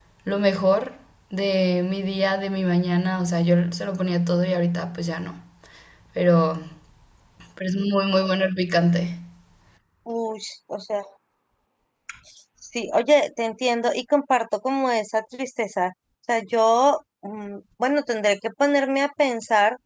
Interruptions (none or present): none